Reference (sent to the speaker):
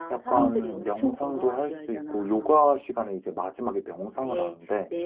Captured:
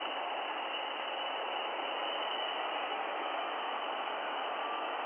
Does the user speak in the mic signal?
No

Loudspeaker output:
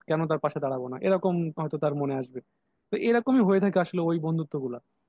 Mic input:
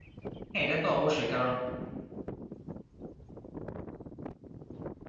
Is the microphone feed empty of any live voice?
No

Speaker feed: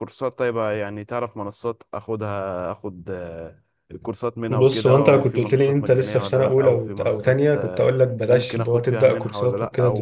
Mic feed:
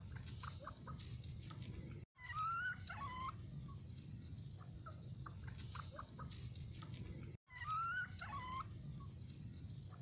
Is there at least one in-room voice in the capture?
No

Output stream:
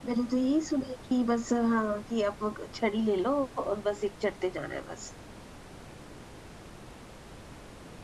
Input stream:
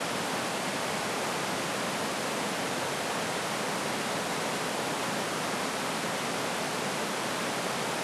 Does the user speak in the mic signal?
No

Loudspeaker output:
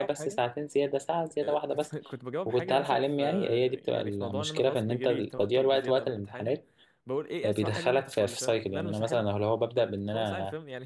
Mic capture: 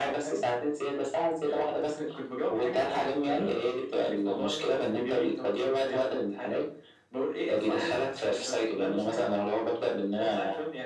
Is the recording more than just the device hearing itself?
No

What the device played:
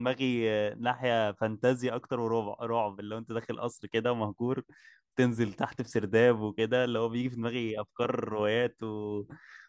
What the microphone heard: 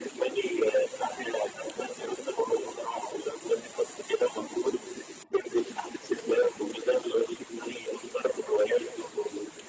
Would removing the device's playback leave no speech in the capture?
Yes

